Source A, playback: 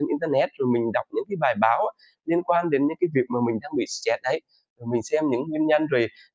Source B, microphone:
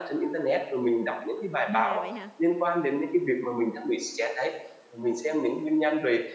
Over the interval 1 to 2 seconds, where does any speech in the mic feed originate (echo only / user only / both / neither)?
both